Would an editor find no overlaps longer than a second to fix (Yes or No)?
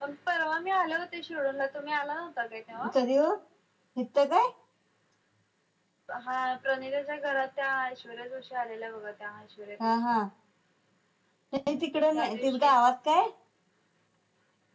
Yes